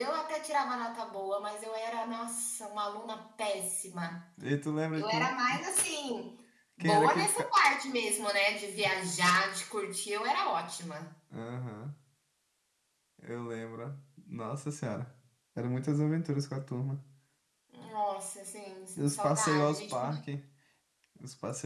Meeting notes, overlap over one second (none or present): present